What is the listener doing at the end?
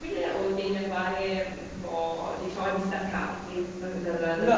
taking over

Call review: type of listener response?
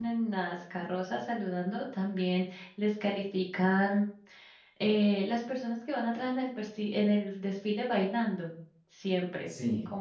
listening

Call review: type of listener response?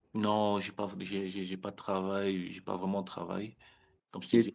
listening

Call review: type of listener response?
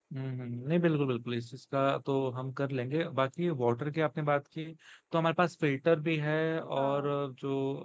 listening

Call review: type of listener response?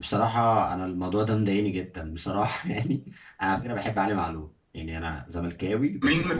taking over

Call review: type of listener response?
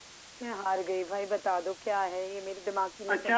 taking over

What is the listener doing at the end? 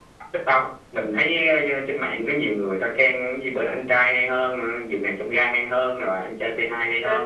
listening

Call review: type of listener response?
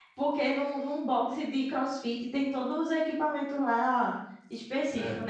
listening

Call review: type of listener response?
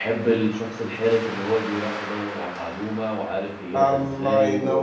taking over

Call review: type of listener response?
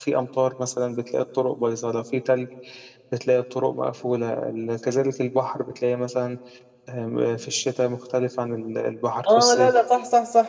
taking over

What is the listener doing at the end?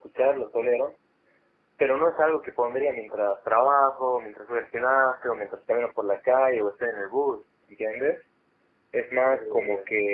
listening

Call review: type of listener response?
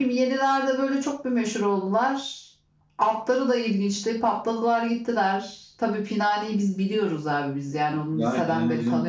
taking over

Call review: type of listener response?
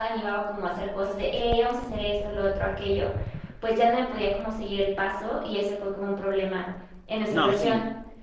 taking over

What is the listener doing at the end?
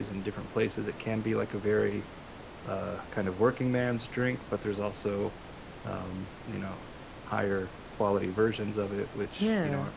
listening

